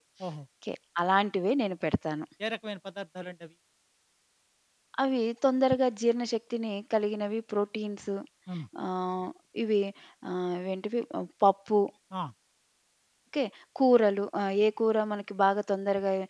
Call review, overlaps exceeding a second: none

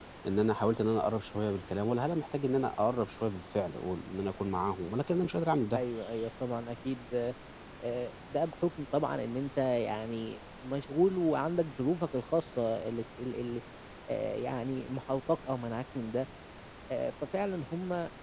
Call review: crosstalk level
none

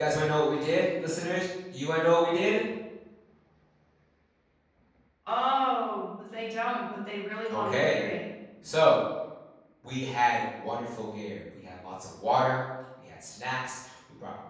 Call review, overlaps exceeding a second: none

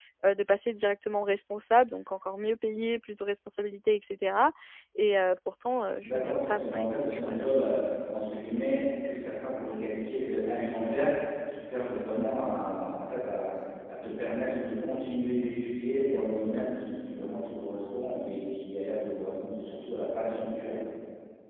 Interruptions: present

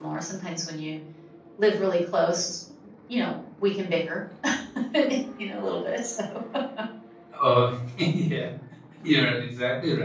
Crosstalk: none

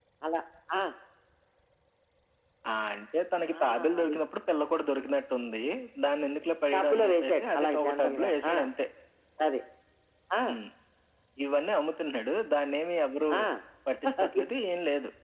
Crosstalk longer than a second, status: present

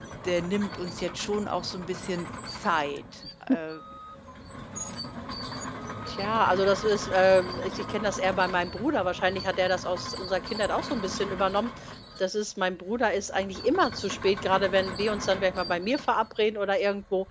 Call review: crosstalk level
none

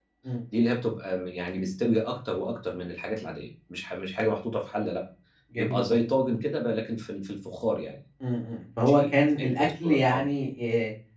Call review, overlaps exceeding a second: present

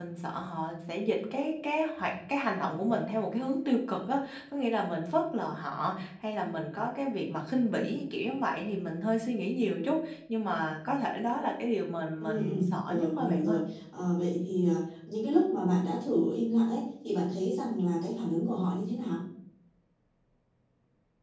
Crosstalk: present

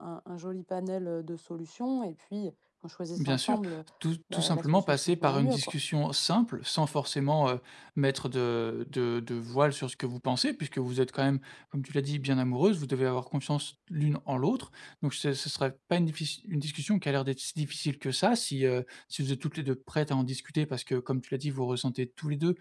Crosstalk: present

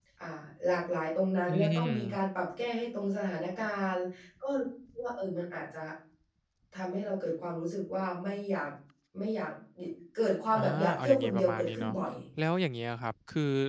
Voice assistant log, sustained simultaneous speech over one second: present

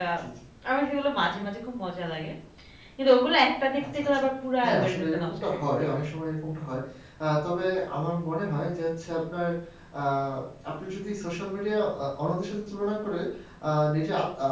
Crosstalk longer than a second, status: present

